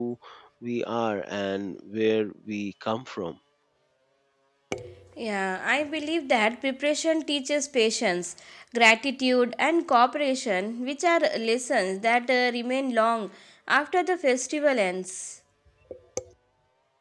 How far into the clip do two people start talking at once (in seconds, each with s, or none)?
none